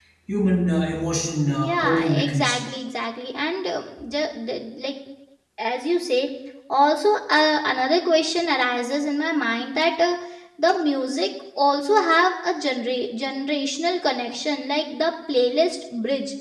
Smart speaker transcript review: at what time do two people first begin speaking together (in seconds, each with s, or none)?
1.5 s